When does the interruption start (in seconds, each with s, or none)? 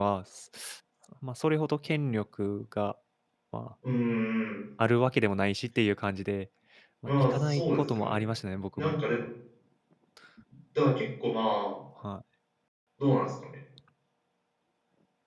7.1 s